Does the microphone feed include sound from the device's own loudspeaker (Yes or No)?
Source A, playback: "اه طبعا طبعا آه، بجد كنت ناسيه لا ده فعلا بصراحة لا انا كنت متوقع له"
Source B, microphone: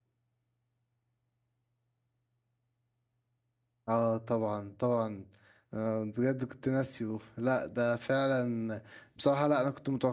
Yes